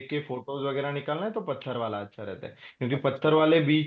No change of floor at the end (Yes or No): Yes